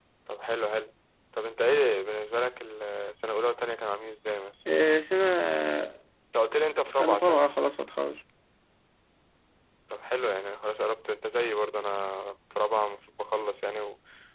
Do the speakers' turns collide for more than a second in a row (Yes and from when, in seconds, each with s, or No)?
No